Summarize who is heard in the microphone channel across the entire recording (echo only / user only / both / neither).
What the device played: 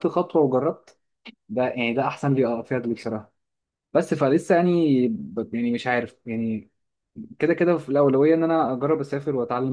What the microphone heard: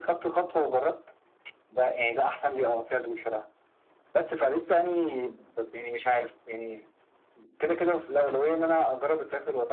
echo only